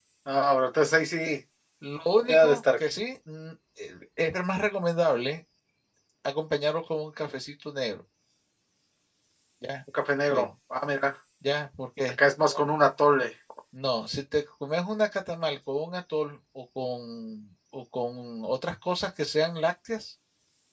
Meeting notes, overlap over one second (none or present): none